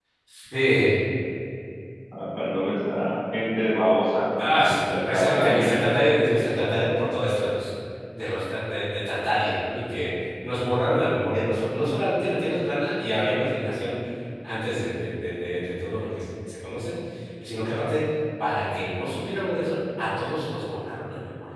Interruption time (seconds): 4.4 s

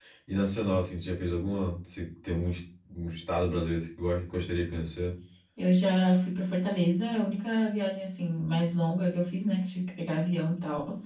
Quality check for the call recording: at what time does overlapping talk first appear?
none

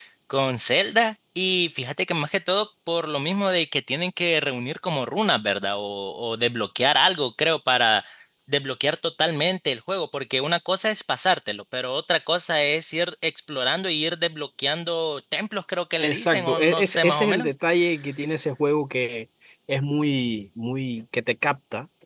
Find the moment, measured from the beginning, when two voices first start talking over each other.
16.0 s

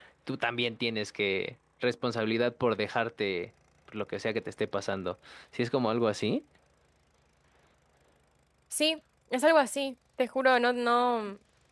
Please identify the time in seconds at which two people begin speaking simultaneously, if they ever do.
none

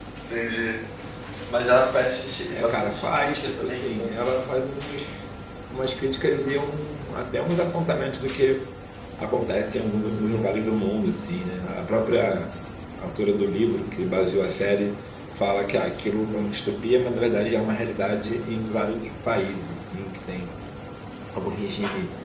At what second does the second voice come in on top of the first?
2.5 s

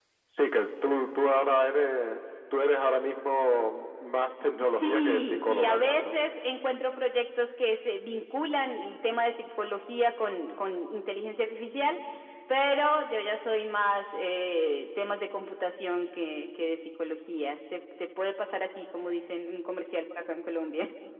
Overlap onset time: 4.6 s

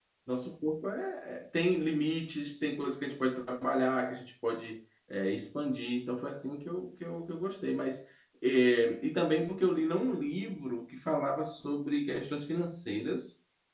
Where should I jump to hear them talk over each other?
none

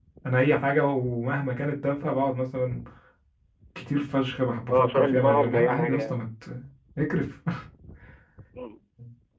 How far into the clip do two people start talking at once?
4.7 s

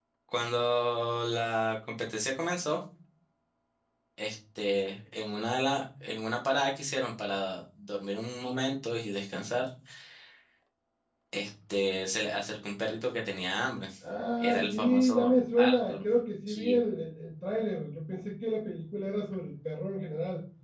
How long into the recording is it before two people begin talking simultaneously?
14.4 s

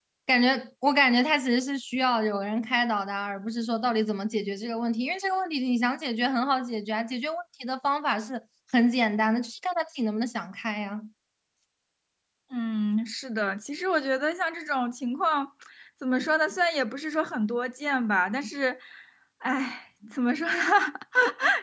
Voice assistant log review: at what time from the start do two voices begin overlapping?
none

